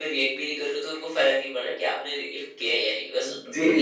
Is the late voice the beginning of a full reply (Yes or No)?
Yes